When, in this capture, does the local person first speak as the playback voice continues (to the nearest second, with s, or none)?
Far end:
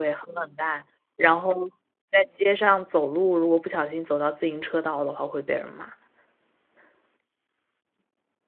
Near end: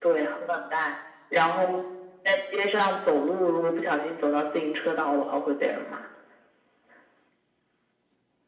none